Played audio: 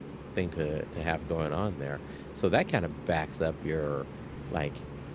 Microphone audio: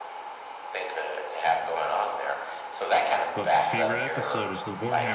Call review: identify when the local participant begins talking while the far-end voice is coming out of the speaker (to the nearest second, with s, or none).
3 s